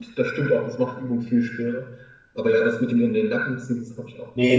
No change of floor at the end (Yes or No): No